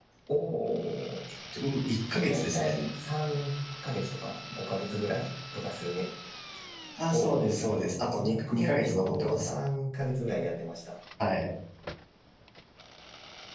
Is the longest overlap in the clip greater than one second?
Yes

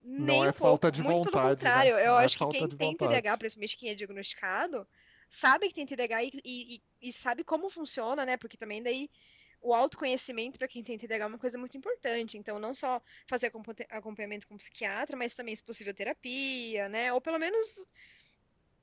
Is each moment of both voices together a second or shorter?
No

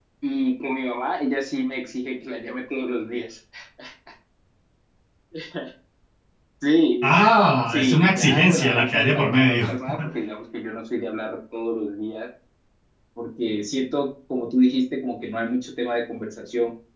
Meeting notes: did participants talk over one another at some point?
Yes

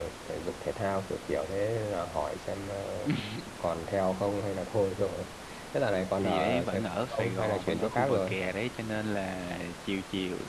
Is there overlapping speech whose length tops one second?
Yes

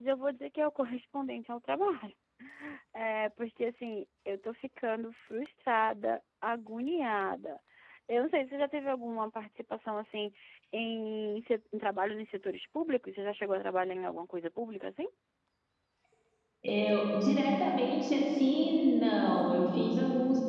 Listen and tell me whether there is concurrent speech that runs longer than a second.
No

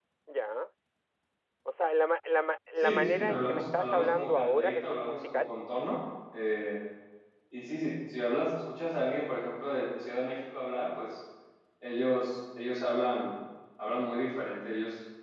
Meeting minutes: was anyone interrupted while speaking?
Yes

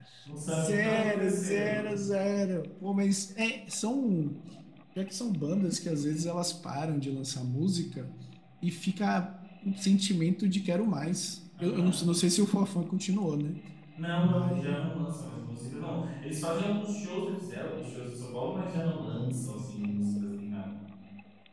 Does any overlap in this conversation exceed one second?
Yes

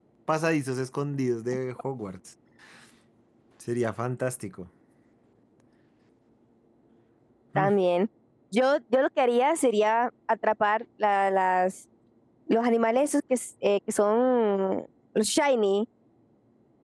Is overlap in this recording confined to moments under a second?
Yes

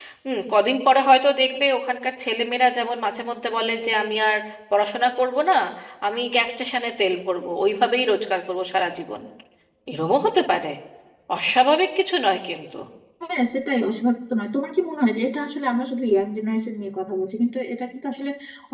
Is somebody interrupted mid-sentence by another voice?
No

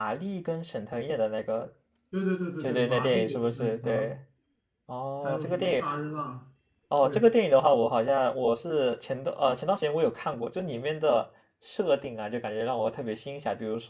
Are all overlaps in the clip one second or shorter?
No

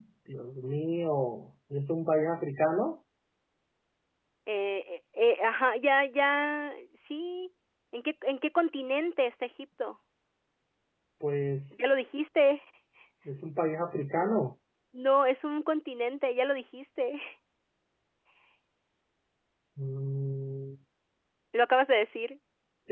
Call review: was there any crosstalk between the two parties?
No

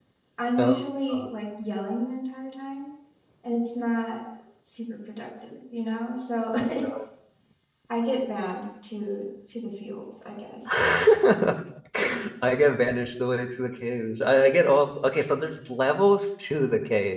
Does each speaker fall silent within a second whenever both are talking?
Yes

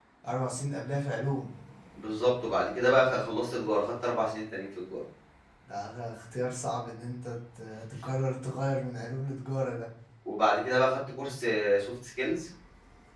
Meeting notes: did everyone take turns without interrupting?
Yes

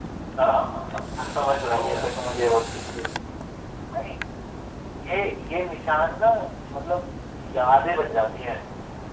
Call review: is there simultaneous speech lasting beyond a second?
Yes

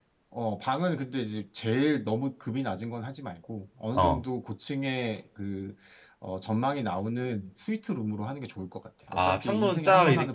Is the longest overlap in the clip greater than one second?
Yes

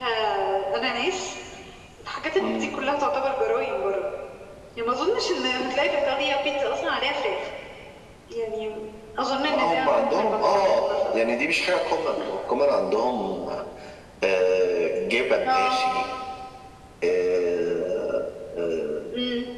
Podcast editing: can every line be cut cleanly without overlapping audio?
No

